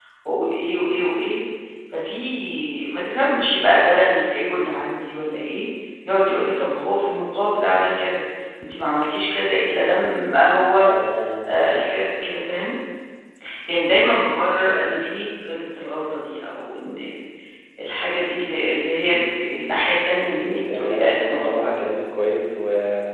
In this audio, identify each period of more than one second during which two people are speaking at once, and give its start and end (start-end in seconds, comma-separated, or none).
20.4-22.0